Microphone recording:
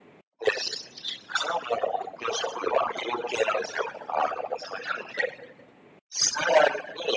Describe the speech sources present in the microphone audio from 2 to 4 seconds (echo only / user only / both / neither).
echo only